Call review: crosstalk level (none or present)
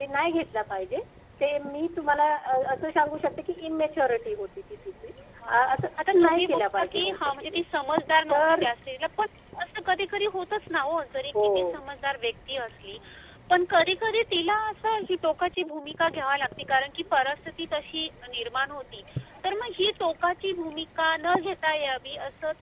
present